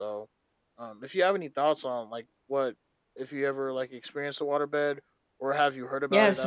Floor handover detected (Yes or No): Yes